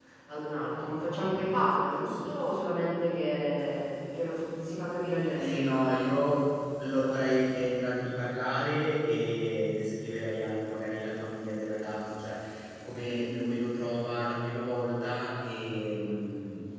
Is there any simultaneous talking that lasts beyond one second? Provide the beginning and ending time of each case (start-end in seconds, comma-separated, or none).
none